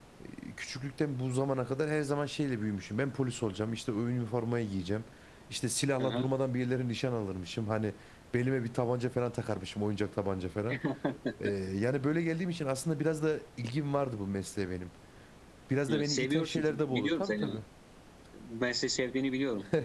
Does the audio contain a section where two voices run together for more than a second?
Yes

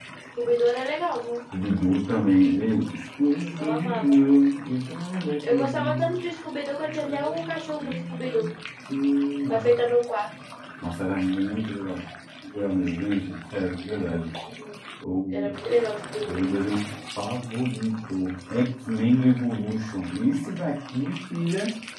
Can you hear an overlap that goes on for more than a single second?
Yes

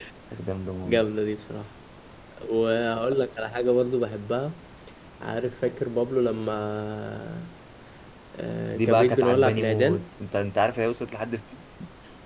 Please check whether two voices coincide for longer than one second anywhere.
Yes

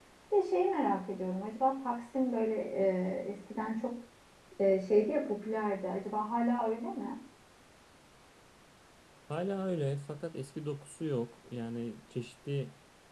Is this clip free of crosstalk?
Yes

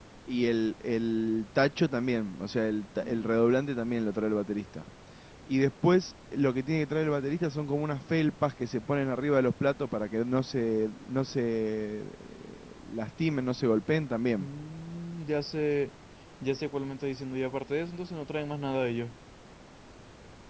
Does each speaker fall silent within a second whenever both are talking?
Yes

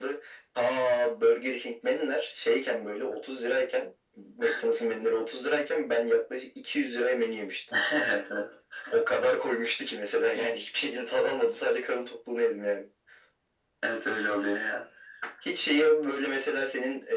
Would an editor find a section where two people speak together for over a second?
No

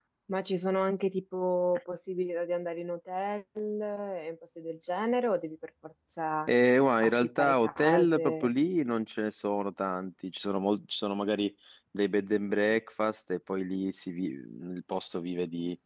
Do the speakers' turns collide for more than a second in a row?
Yes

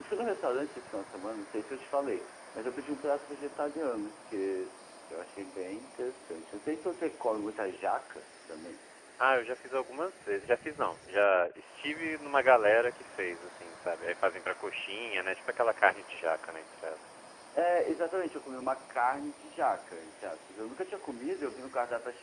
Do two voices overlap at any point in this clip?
No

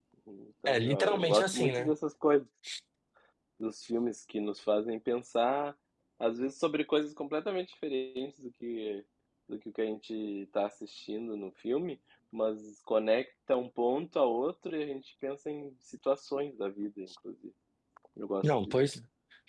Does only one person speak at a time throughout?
No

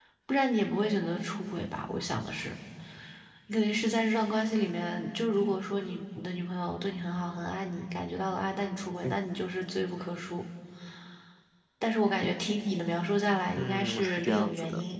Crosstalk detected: Yes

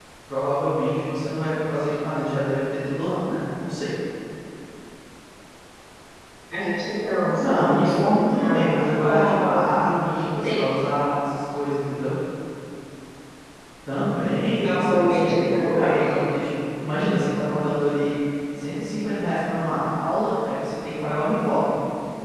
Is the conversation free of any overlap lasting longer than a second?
No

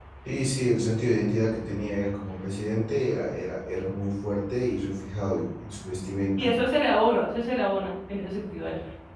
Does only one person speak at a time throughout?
Yes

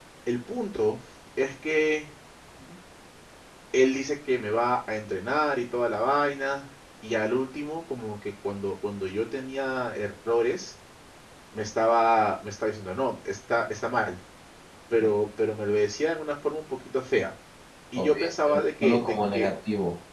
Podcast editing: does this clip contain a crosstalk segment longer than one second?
Yes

